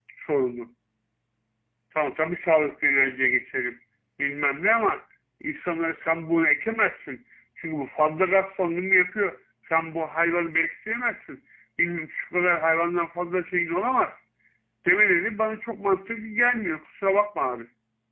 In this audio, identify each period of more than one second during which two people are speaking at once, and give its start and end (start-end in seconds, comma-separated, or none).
none